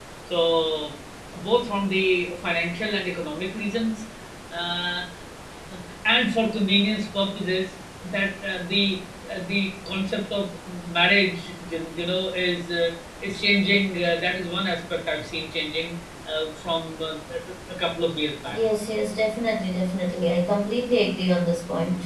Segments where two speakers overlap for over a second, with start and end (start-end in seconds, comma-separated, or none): none